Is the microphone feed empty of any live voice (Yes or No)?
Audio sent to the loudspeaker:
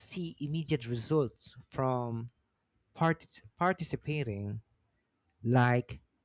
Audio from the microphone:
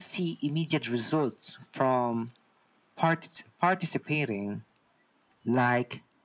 Yes